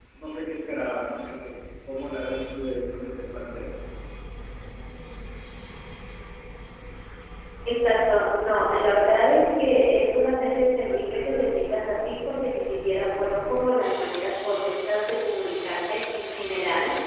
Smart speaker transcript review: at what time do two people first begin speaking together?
none

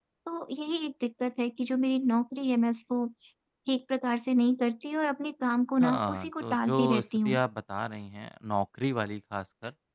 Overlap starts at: 5.8 s

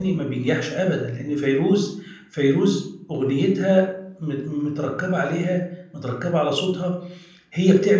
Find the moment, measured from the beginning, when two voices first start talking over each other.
none

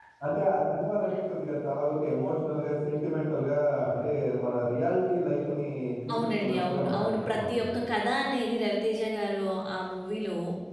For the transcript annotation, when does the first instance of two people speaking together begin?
6.1 s

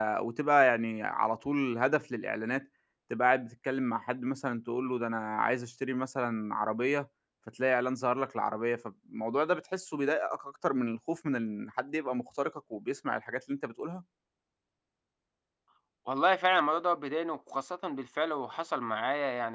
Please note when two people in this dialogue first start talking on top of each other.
none

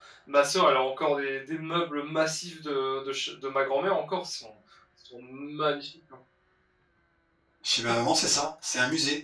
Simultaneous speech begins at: none

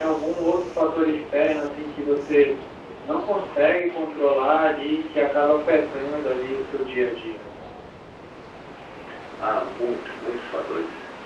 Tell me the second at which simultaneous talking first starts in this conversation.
none

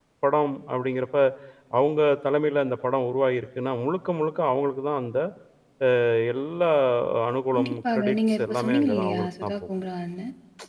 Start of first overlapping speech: 7.5 s

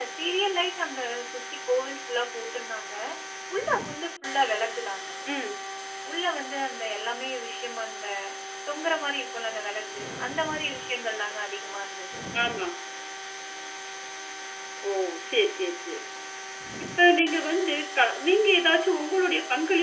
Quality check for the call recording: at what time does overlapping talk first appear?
none

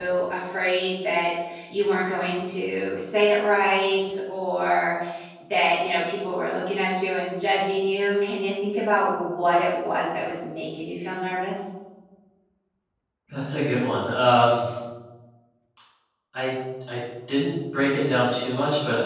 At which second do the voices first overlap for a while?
none

